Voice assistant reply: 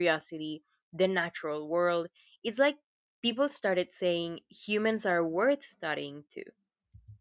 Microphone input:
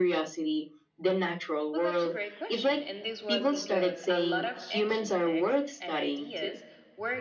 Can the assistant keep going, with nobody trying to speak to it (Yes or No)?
No